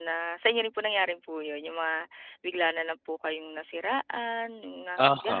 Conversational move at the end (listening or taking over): taking over